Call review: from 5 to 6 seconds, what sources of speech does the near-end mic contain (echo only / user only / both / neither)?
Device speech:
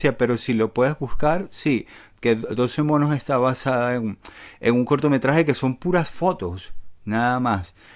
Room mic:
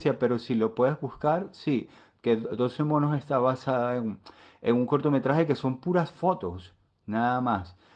echo only